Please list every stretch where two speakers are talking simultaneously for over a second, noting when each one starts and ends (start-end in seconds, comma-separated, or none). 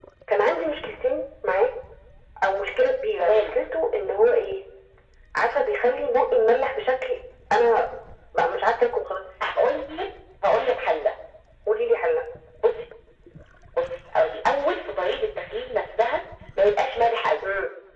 none